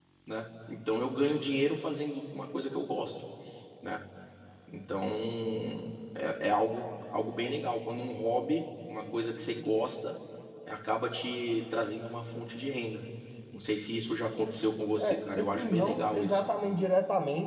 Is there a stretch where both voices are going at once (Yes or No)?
Yes